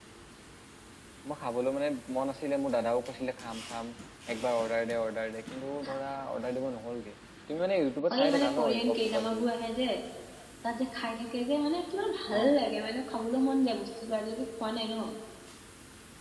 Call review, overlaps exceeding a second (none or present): present